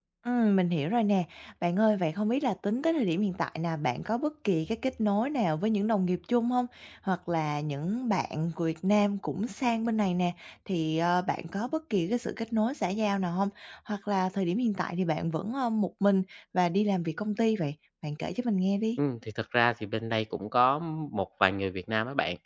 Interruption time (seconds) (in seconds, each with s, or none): none